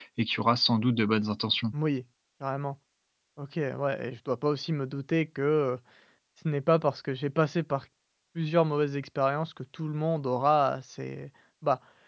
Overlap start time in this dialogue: none

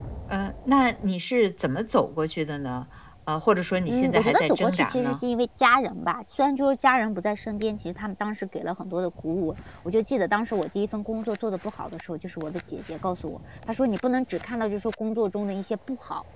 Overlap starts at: 3.9 s

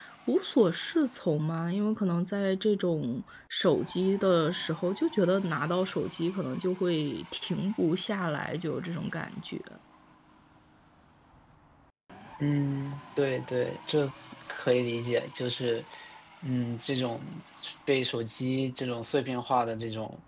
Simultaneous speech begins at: none

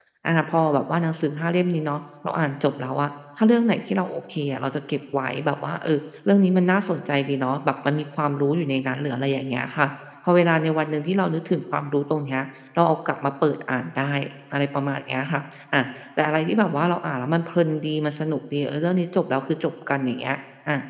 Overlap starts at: none

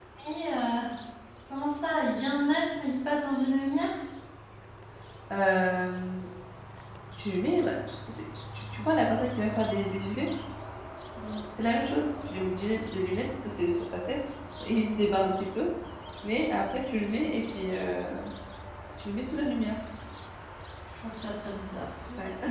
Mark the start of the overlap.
none

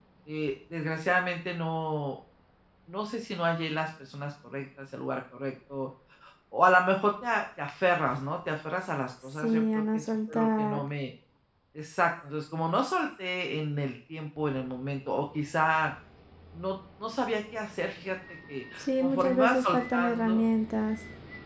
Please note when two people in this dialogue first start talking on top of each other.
9.4 s

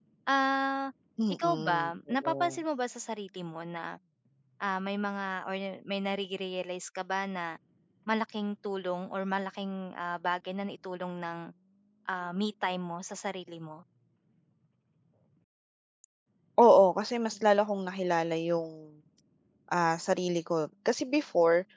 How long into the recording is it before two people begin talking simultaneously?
1.3 s

